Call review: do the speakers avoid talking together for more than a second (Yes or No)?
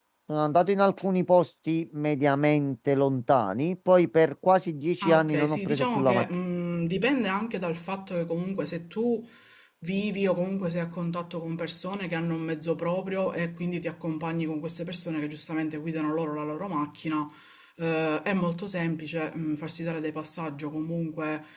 No